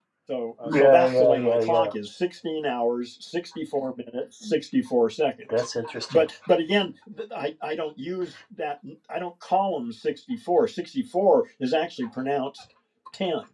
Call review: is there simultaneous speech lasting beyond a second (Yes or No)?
Yes